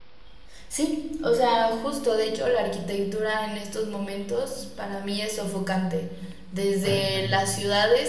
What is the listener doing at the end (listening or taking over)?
listening